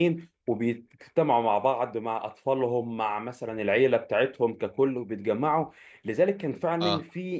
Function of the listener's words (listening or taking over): listening